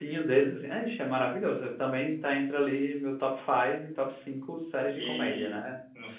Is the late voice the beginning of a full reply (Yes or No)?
Yes